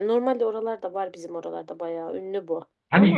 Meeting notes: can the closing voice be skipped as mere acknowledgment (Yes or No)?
No